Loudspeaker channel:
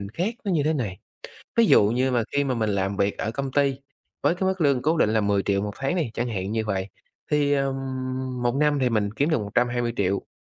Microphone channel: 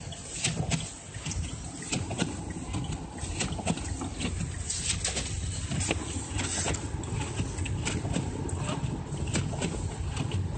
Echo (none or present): none